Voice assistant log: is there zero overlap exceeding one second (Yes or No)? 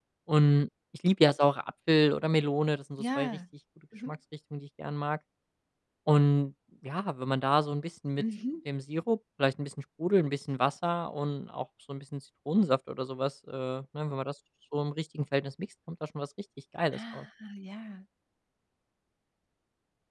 Yes